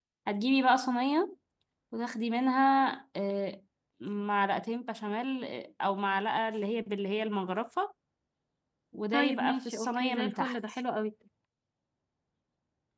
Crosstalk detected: Yes, from 9.1 s

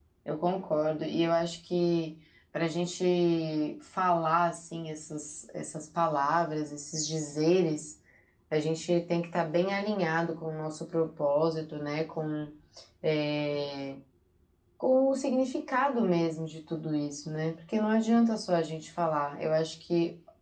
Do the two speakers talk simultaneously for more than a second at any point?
No

